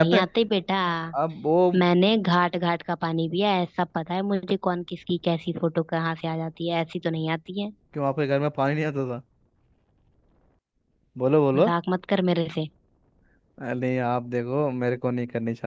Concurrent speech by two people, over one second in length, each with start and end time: none

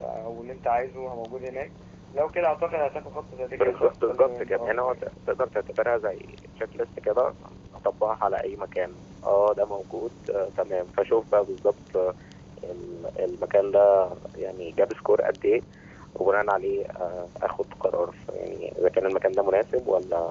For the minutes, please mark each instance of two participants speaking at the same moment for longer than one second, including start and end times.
3.5-5.0

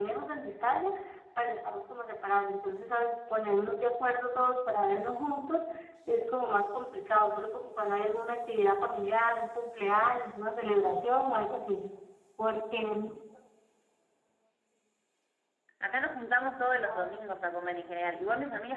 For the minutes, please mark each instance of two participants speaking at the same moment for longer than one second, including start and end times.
none

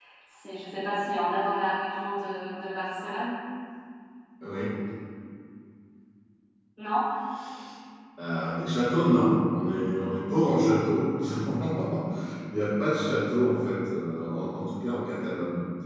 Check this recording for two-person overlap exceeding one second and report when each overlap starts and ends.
none

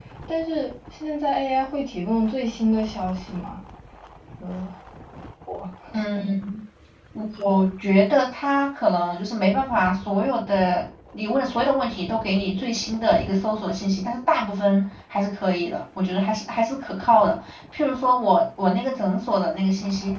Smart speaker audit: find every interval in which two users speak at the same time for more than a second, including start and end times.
none

